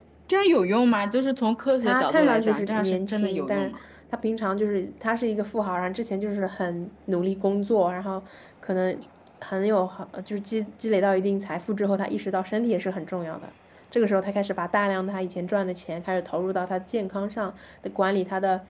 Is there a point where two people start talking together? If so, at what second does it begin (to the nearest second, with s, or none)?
2 s